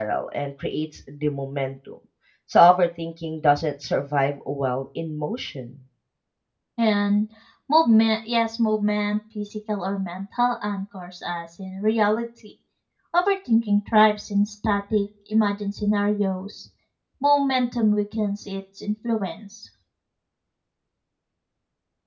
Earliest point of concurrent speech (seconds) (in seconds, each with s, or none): none